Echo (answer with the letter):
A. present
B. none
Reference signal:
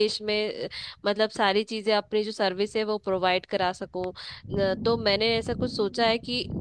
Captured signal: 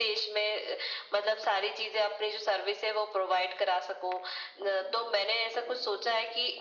A